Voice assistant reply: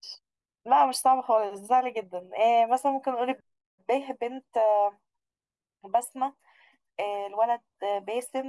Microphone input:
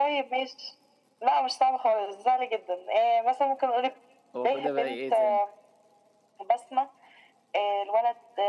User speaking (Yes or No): Yes